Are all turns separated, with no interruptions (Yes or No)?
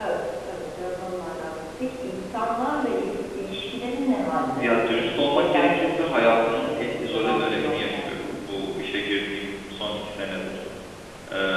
No